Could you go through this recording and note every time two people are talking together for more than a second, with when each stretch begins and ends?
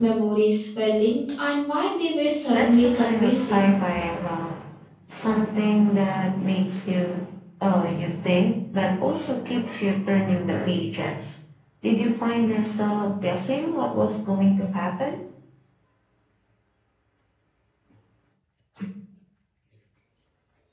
2.5-3.8

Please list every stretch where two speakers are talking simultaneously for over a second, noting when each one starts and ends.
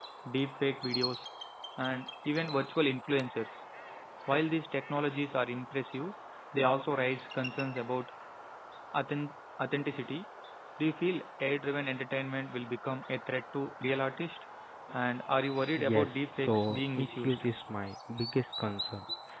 15.9-17.4

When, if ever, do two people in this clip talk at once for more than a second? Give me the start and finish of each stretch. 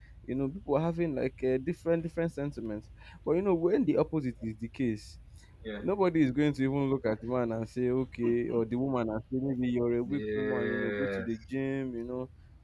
10.1-11.3

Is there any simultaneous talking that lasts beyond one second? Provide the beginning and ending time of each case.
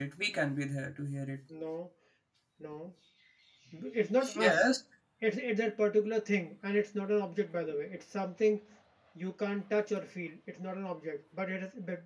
none

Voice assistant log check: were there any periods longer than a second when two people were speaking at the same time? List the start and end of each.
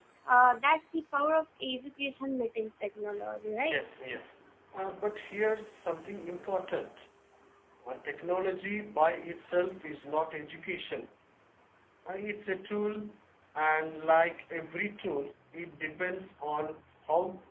none

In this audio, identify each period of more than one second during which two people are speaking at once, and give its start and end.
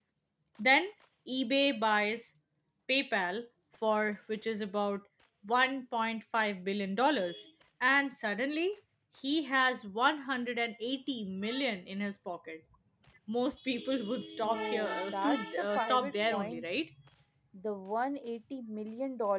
14.4-16.6

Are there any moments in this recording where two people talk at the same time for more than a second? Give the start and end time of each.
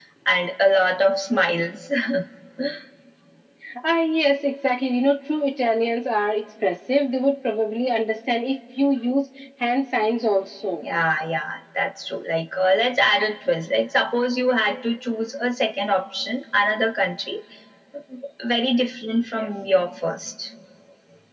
none

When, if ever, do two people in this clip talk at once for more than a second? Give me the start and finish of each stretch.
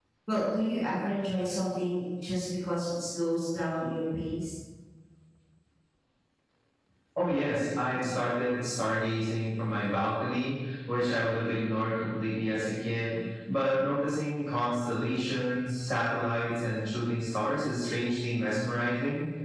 none

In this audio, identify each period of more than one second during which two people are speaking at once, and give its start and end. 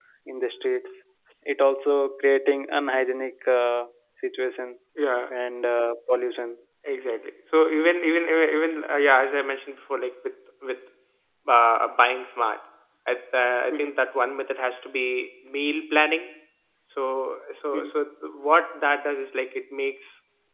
none

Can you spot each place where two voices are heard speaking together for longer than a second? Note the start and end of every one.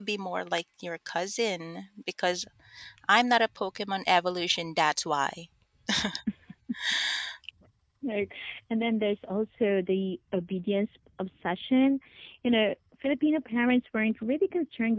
none

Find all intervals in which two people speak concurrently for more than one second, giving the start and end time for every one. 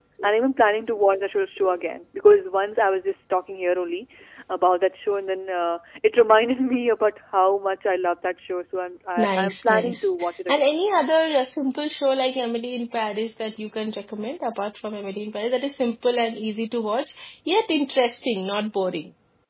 9.2-10.8

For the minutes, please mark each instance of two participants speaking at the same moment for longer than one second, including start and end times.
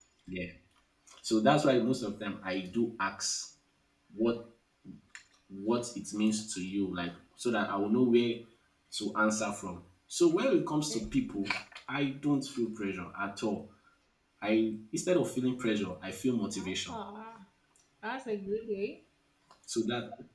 none

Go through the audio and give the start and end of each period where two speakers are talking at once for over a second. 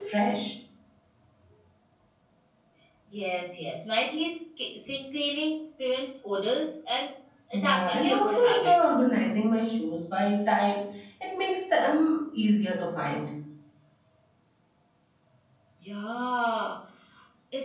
7.5-8.7

